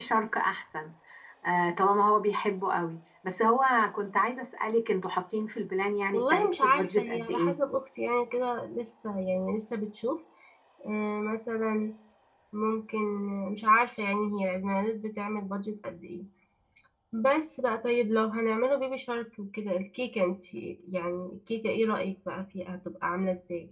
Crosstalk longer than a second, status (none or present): present